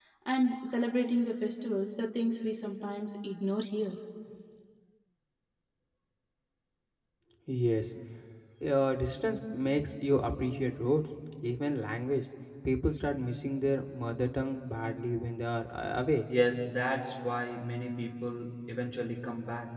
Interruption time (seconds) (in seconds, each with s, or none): none